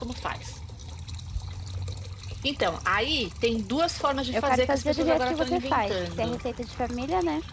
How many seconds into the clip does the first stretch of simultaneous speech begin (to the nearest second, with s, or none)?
4 s